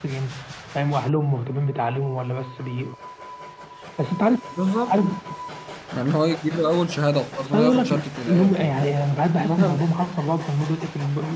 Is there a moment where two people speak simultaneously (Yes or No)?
Yes